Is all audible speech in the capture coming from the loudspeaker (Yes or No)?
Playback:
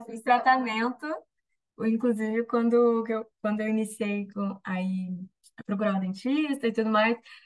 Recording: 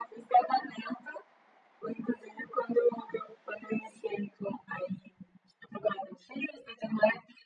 Yes